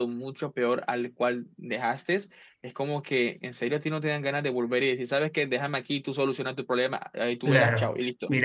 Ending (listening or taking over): taking over